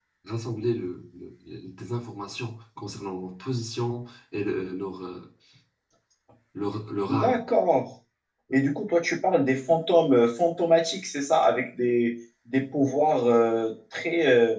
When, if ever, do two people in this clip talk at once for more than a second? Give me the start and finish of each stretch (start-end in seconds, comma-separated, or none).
none